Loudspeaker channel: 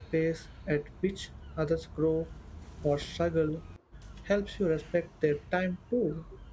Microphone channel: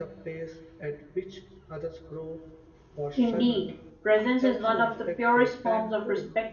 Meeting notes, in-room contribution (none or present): present